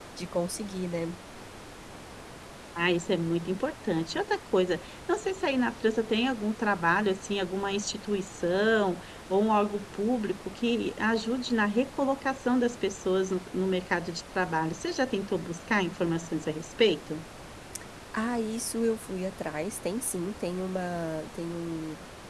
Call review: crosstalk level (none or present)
none